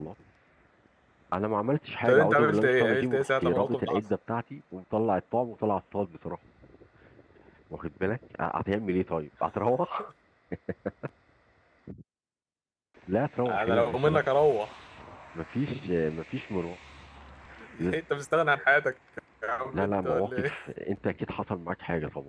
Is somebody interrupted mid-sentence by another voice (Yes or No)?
Yes